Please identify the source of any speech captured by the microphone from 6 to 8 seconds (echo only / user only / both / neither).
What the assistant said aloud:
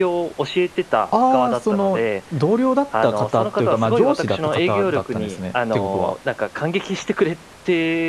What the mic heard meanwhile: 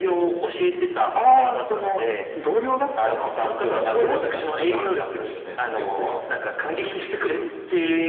echo only